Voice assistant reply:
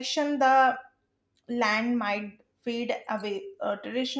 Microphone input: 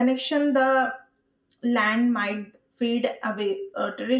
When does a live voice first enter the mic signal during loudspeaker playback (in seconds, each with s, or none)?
none